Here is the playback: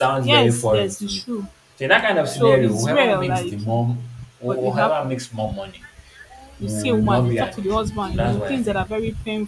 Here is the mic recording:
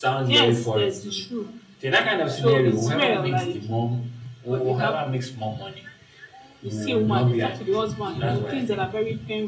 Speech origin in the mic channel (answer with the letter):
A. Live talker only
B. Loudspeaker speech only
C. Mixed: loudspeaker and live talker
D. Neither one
B